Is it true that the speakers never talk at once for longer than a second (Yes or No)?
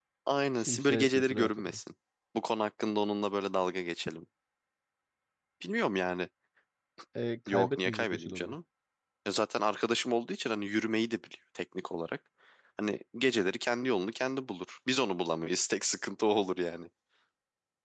No